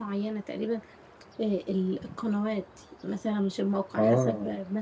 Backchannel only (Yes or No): Yes